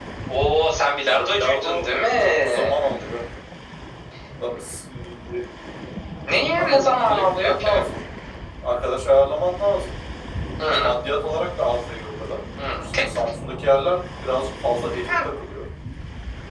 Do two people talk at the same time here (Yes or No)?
Yes